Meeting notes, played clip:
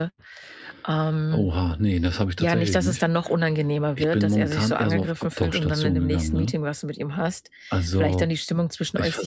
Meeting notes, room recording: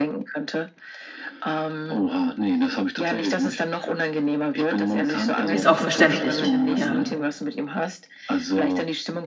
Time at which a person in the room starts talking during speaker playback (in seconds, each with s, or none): 5.5 s